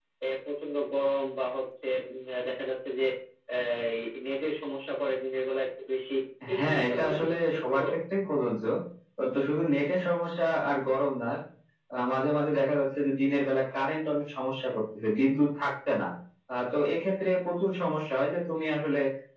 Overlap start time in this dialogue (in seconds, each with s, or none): 6.6 s